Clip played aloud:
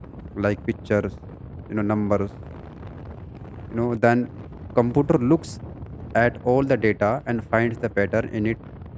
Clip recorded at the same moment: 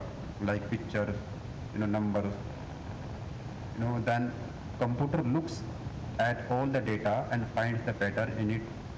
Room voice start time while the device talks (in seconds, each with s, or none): none